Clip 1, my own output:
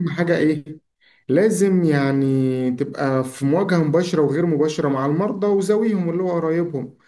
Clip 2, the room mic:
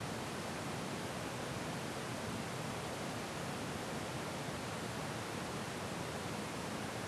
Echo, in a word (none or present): none